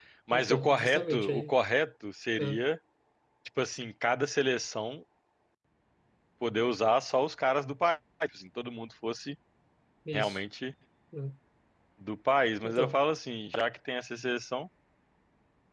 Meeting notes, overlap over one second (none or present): present